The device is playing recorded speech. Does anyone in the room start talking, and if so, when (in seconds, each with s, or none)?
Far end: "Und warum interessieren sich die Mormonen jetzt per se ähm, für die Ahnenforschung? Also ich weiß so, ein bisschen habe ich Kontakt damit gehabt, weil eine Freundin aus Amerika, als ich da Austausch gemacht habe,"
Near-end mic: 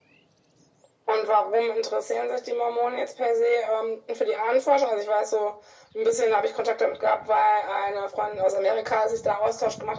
none